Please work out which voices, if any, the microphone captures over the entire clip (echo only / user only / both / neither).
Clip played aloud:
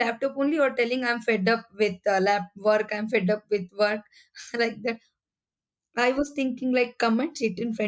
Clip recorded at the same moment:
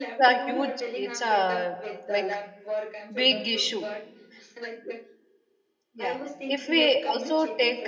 both